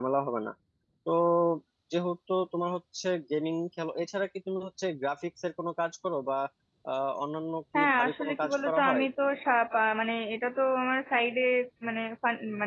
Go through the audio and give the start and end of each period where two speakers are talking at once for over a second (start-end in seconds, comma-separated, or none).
7.8-9.0